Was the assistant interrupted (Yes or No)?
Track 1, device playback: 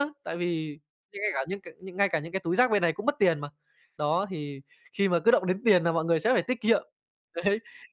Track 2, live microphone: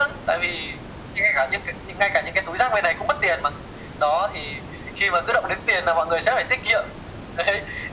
No